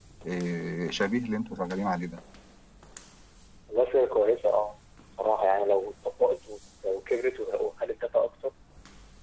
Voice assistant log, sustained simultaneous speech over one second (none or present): none